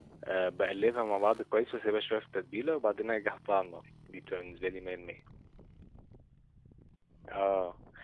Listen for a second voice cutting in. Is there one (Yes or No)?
No